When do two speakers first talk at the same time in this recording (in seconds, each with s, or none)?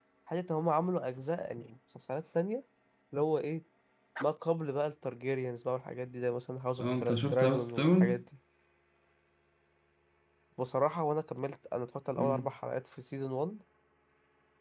6.8 s